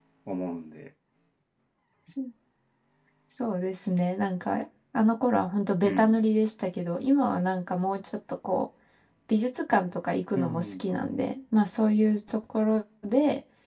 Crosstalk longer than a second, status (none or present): none